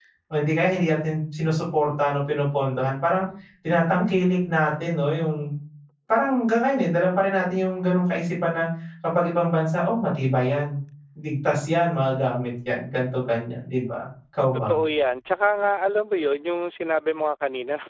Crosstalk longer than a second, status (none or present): none